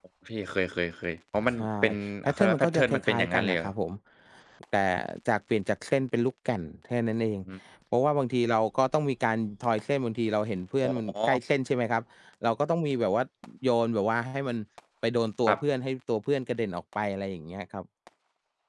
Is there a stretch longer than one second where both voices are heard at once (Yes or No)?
Yes